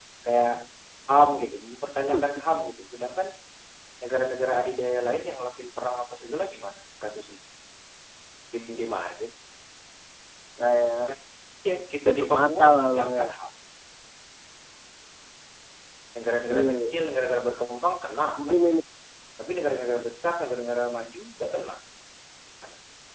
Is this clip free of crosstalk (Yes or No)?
No